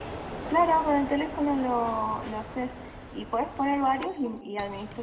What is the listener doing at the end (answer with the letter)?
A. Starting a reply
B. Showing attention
B